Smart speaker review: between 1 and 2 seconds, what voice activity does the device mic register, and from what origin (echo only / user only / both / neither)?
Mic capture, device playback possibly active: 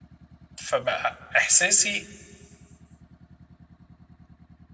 user only